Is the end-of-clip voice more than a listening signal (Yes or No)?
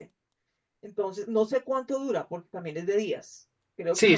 Yes